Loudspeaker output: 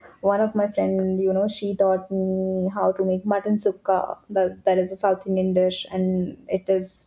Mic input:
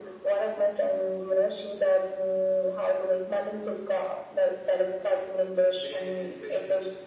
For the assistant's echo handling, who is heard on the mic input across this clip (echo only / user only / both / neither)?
both